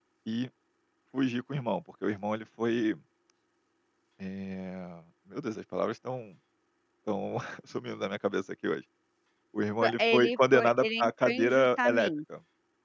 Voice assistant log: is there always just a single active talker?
No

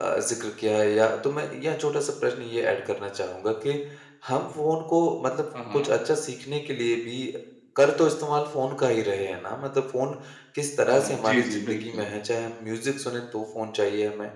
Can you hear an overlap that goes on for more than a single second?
Yes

